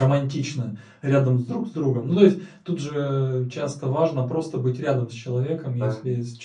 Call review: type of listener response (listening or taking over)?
listening